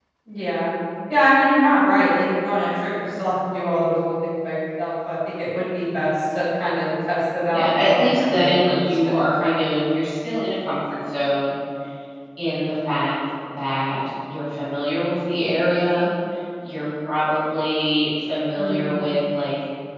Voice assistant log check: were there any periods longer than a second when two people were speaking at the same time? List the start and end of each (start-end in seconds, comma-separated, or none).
7.5-9.2